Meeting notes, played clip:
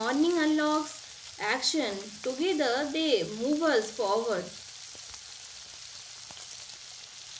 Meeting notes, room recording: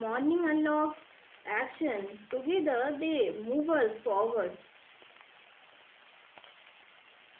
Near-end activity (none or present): none